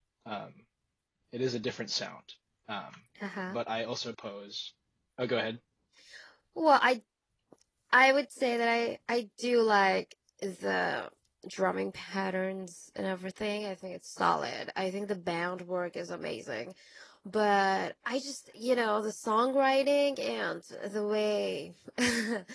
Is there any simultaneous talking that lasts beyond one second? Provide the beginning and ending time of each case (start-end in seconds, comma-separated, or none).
none